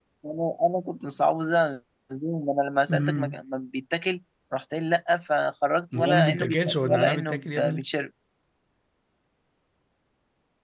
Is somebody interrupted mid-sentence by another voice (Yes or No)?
Yes